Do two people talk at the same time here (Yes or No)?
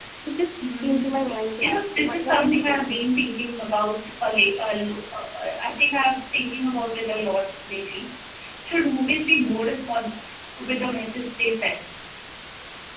Yes